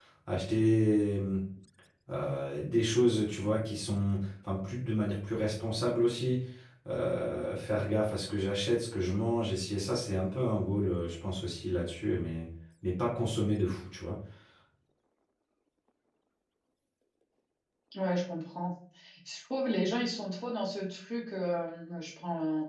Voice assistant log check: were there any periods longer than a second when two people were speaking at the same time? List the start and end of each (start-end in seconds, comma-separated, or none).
none